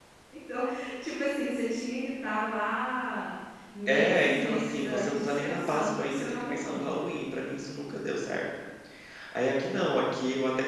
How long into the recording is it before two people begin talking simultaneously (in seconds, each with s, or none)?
3.9 s